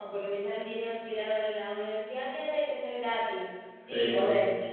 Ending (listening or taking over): listening